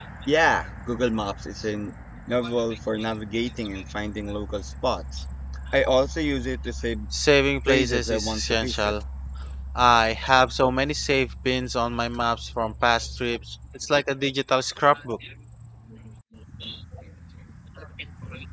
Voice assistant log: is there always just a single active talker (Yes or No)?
No